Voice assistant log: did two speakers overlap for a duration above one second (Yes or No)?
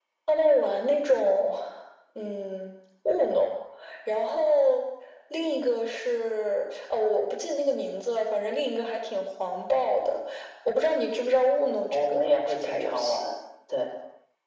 Yes